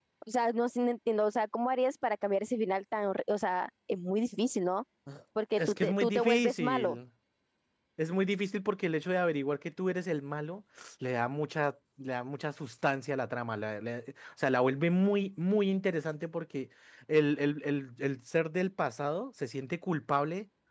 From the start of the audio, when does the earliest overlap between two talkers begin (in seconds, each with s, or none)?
5.6 s